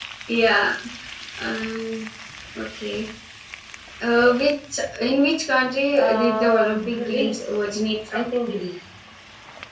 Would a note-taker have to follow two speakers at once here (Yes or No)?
Yes